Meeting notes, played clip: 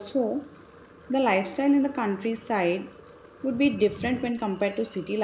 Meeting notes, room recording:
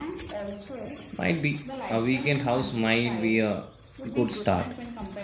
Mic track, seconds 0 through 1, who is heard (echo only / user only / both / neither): echo only